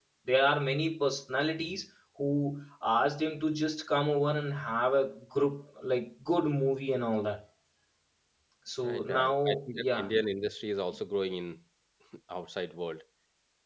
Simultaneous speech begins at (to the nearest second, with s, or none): 9 s